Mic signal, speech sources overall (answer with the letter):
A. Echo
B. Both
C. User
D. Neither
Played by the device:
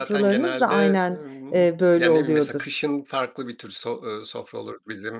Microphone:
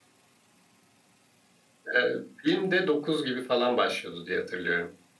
C